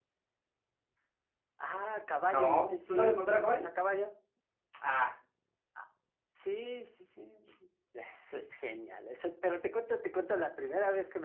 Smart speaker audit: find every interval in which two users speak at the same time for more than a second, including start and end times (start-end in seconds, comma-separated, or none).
2.3-3.6